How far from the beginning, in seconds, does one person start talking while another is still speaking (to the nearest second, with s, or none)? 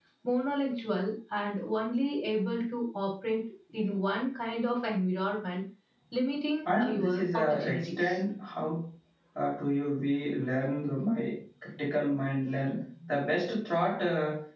7 s